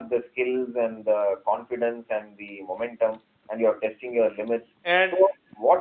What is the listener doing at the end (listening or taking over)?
listening